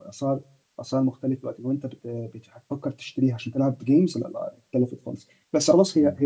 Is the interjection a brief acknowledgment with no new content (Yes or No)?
Yes